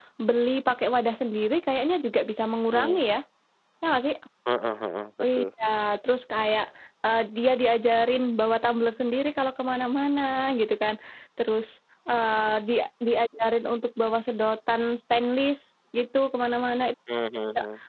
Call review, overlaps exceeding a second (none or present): none